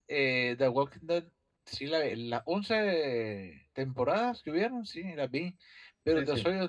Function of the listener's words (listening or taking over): listening